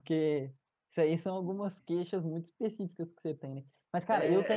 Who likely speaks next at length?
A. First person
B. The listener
B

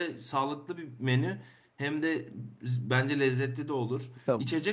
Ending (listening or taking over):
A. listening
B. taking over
A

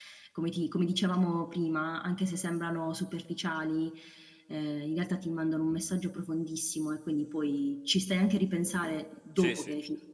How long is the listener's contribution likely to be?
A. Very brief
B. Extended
B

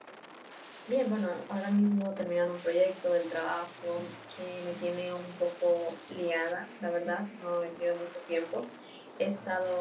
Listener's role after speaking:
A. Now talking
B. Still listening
B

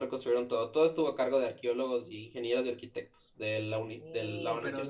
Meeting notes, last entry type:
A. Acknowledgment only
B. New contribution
B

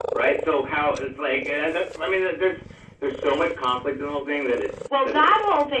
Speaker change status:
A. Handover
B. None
A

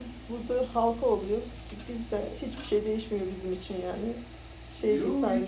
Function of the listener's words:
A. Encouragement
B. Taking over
B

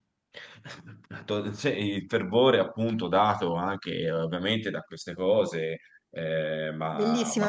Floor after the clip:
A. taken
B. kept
A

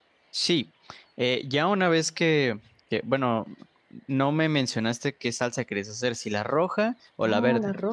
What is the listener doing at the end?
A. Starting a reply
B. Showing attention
A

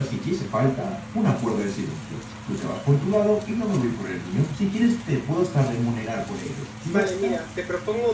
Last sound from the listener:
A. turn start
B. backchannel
A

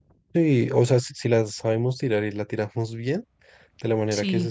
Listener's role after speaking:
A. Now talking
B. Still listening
B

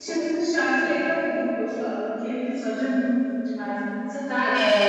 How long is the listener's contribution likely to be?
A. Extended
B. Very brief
A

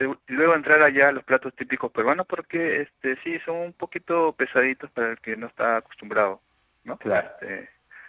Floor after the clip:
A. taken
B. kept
B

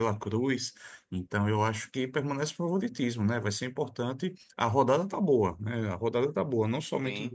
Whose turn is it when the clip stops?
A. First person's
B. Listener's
A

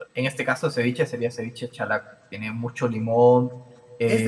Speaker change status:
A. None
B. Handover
B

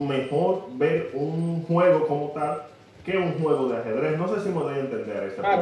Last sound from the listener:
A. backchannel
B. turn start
B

